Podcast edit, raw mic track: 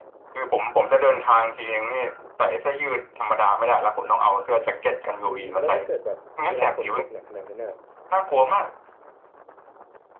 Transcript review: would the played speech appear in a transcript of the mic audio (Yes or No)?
Yes